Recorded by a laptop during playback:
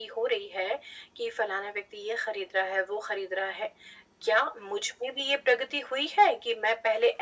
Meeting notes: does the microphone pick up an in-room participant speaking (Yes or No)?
No